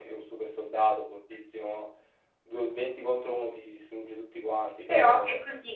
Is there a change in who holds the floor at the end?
Yes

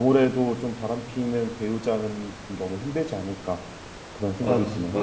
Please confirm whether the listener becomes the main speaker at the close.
Yes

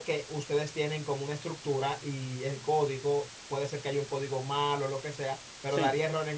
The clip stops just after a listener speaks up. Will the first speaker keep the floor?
Yes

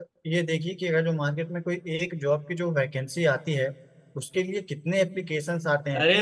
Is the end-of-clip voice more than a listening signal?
Yes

